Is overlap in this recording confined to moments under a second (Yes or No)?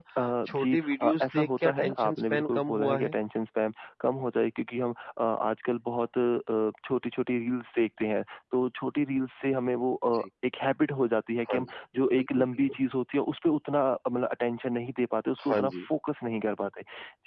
No